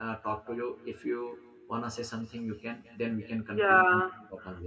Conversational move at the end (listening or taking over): taking over